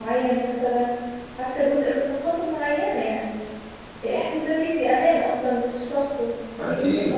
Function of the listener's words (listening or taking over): taking over